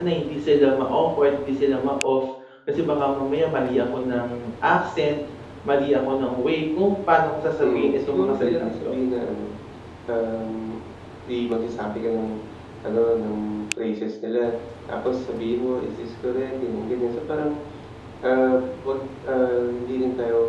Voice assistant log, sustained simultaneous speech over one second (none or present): present